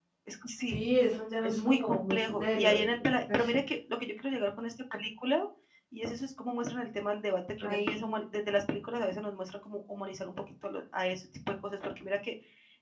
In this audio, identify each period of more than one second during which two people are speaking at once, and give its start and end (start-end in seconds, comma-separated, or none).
1.4-2.9